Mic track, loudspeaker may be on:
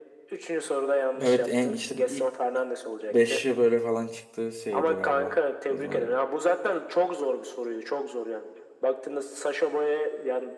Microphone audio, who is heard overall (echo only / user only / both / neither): both